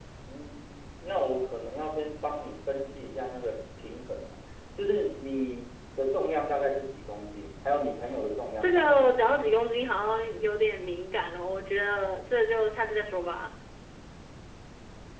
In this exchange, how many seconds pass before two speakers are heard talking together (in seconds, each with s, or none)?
8.6 s